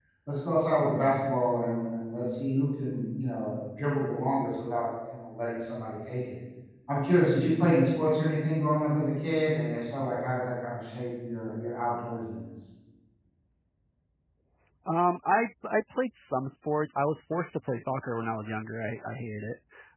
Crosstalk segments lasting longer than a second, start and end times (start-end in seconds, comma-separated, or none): none